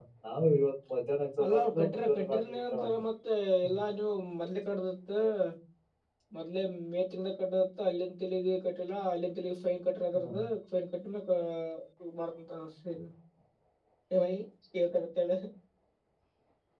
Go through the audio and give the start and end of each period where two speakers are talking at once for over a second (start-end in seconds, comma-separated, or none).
1.4-2.9